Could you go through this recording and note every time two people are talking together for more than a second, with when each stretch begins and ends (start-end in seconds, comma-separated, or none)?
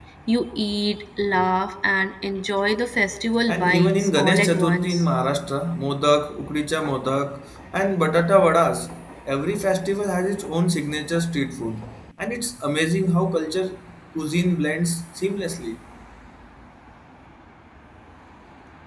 3.5-5.0